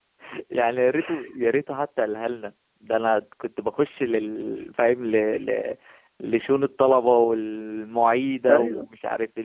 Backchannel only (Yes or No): Yes